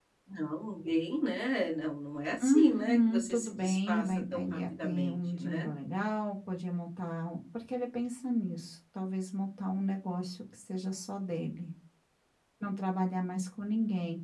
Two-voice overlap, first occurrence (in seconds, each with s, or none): 2.4 s